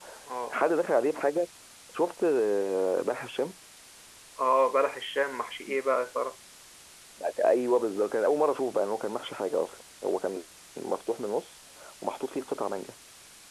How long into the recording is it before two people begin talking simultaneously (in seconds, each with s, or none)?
none